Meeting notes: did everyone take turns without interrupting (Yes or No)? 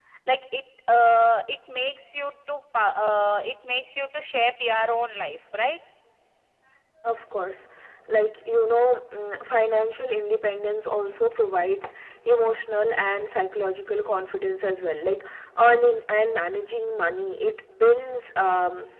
Yes